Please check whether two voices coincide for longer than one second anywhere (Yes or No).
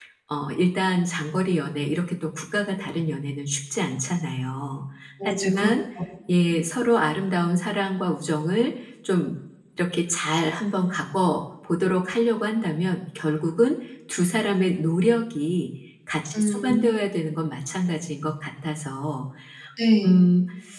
No